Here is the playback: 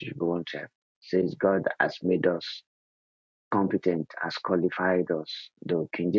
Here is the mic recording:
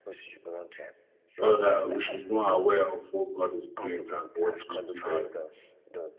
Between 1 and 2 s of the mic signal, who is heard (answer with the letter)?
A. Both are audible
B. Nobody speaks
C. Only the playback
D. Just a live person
A